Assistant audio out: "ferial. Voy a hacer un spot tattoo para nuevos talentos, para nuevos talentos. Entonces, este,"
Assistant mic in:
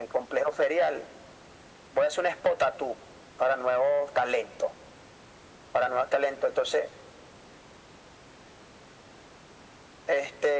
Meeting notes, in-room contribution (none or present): none